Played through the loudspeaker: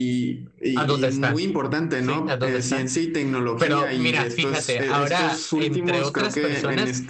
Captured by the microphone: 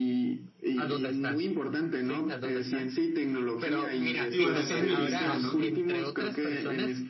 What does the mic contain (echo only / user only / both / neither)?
both